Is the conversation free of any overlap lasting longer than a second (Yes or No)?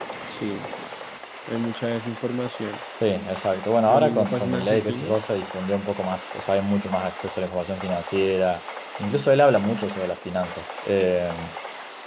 No